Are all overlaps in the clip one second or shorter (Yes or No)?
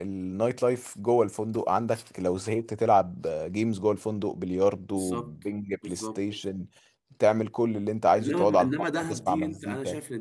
No